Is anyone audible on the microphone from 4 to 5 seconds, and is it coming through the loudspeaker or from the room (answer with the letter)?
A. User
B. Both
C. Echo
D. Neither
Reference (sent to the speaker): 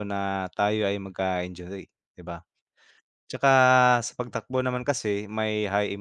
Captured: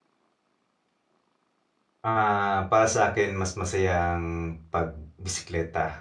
A